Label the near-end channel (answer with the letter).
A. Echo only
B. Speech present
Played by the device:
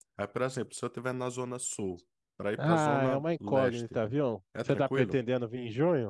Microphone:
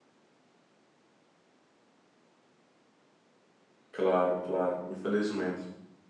B